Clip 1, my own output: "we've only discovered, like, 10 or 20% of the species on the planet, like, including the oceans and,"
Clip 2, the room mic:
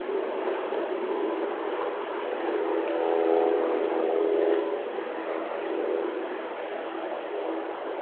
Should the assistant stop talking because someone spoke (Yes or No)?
No